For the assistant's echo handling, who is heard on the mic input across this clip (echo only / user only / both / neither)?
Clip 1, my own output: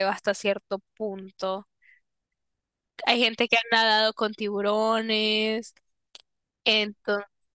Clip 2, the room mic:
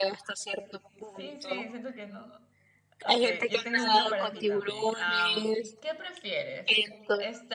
both